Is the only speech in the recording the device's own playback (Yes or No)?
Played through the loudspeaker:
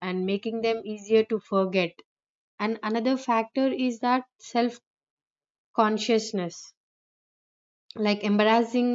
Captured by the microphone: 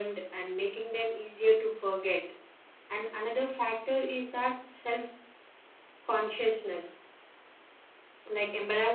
Yes